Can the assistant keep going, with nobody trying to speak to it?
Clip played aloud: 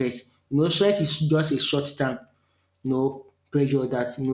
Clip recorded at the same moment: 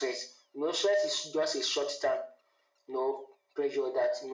Yes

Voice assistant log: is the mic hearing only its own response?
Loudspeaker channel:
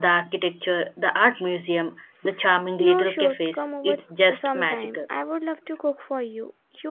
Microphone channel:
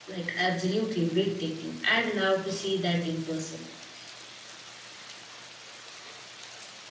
No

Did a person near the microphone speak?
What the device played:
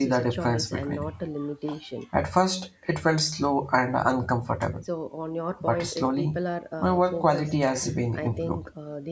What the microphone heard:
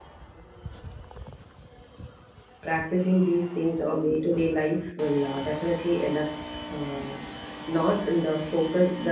Yes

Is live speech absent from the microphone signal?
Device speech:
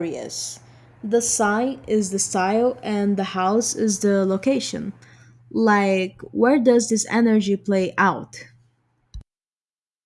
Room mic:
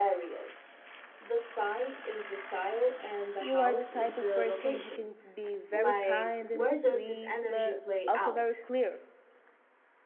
No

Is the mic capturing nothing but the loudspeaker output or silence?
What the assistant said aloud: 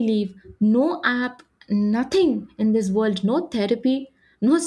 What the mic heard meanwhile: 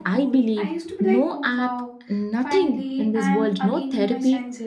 No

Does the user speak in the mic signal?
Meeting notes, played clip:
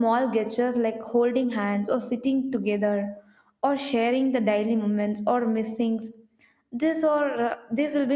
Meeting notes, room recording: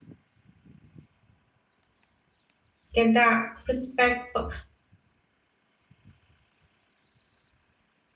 Yes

